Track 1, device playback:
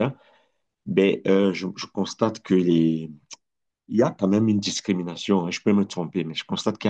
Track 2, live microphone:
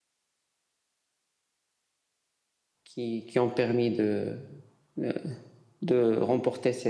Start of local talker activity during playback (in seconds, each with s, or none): 2.8 s